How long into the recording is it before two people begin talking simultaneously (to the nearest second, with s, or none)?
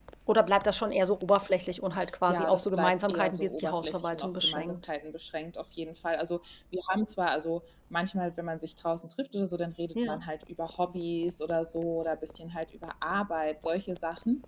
2 s